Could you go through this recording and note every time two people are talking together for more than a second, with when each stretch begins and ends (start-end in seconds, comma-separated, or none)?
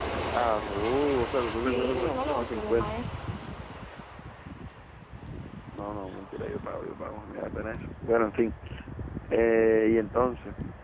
1.5-3.0